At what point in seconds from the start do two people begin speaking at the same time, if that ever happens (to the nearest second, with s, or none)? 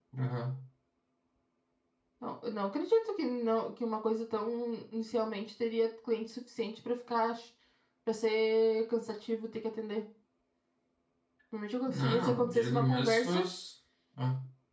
12 s